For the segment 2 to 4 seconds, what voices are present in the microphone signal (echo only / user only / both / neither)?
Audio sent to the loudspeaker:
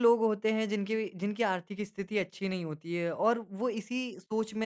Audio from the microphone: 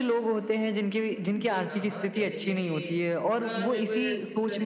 both